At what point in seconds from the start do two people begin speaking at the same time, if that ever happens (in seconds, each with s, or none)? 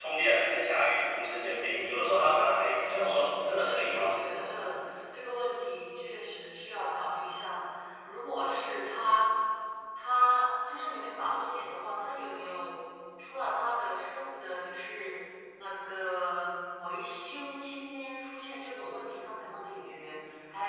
2.7 s